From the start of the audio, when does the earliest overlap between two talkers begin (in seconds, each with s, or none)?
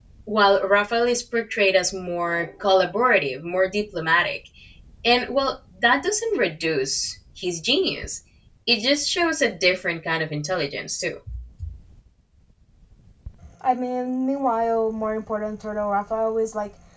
none